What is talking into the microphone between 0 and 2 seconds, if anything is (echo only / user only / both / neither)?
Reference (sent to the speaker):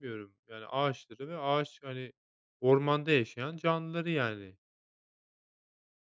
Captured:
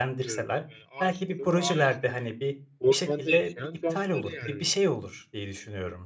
both